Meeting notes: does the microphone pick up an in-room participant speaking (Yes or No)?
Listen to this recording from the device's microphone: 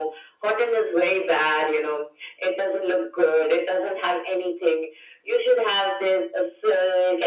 No